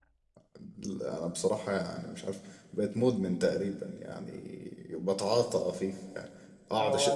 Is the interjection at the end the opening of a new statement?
No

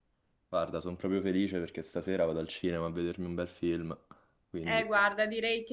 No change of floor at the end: No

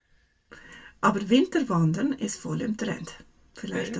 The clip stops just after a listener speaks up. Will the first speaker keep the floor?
Yes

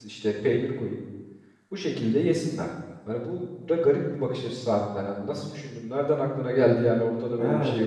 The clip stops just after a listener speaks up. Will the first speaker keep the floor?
No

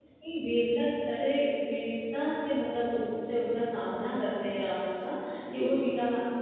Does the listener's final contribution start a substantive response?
No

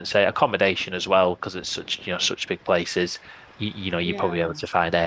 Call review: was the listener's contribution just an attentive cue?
Yes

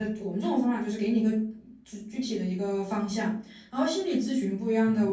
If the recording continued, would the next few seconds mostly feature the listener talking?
No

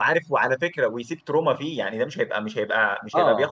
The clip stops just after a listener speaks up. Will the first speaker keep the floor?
Yes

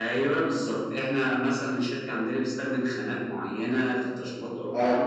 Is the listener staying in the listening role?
Yes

